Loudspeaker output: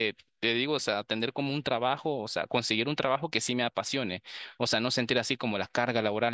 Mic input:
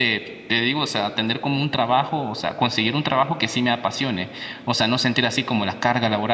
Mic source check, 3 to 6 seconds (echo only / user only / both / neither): echo only